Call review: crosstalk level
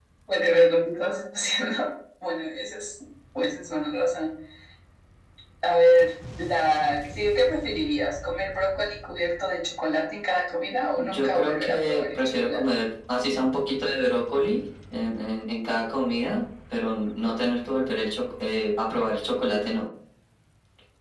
present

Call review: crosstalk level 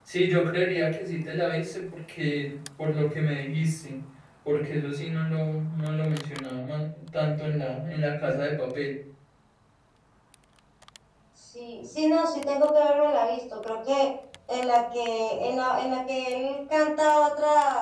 none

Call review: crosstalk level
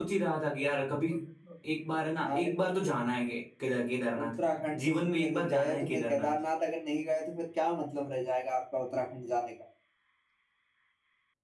present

